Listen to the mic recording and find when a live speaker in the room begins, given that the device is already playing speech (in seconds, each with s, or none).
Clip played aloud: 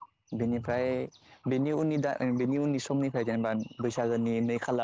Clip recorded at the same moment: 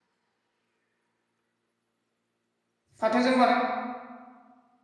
3.0 s